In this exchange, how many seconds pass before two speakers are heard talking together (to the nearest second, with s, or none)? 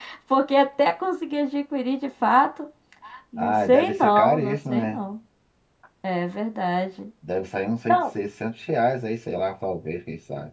3 s